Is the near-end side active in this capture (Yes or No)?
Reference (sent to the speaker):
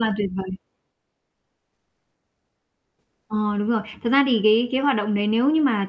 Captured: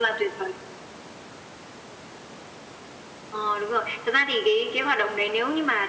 No